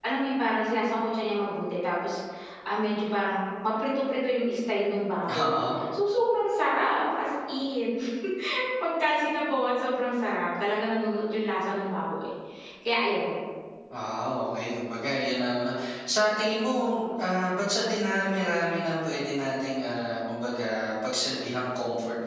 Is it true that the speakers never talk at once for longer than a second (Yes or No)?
Yes